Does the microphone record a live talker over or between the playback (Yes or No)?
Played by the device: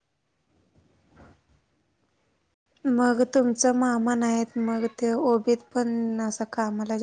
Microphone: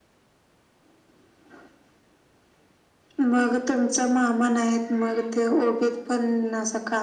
No